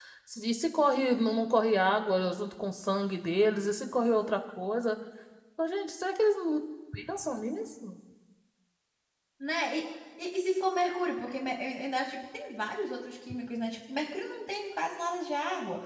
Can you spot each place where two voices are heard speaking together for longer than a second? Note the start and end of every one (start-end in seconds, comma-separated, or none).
none